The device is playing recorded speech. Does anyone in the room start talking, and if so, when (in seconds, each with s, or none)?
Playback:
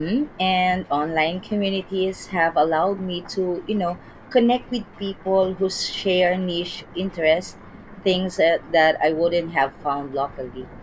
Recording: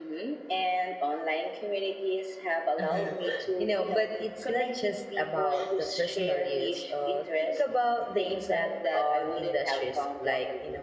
2.8 s